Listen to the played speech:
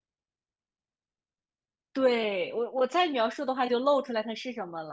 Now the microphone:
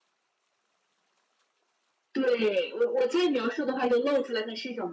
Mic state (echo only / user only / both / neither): echo only